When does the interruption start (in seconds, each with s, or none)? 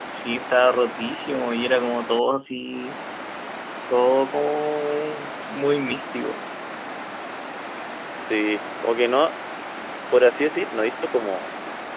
none